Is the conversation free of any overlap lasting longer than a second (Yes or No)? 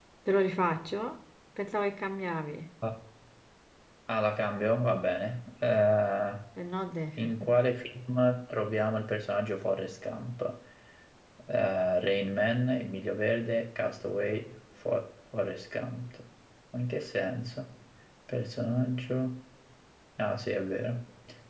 Yes